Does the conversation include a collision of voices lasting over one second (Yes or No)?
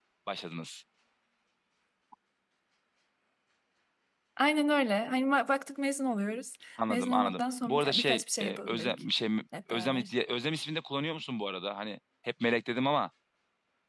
Yes